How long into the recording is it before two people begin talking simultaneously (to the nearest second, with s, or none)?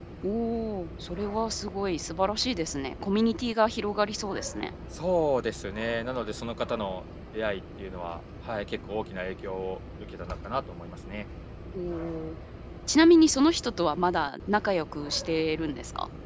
none